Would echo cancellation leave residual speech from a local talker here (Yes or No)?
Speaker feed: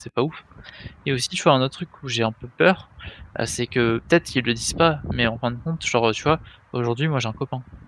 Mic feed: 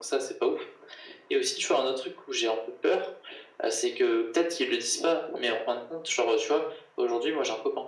No